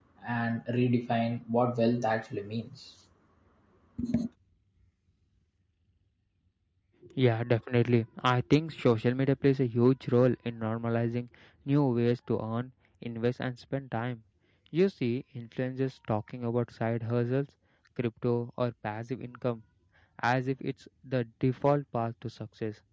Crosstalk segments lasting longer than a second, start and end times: none

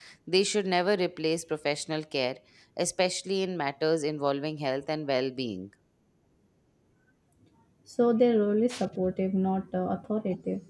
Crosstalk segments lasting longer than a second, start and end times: none

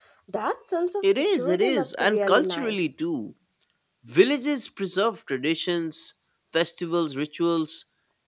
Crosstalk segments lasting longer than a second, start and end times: 1.0-2.8

